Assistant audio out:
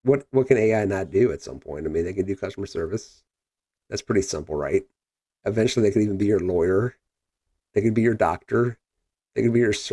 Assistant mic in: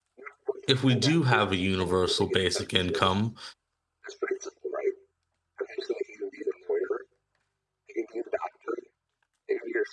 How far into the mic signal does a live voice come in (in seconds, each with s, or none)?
0.7 s